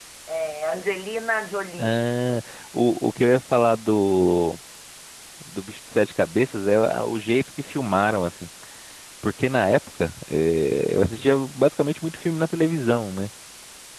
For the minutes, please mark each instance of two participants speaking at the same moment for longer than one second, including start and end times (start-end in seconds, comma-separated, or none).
none